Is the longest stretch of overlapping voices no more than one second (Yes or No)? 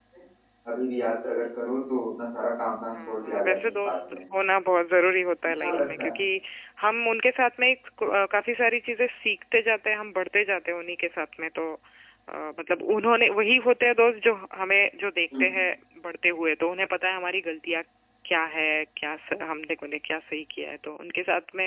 No